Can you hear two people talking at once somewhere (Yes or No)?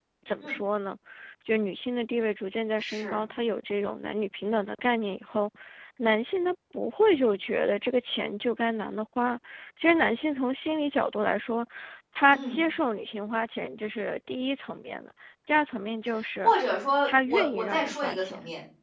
Yes